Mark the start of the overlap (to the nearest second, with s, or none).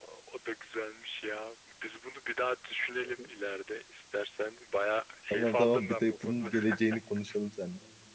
5 s